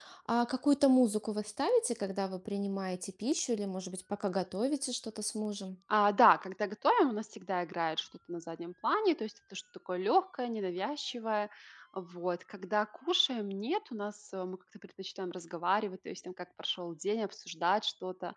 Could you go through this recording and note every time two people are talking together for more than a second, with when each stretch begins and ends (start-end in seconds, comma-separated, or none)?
none